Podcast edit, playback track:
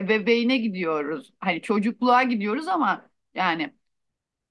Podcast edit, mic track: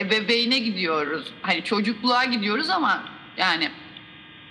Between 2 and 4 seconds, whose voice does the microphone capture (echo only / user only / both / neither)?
echo only